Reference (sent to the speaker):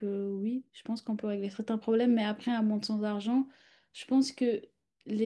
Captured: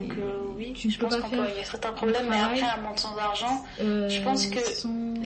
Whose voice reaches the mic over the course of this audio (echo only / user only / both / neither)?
both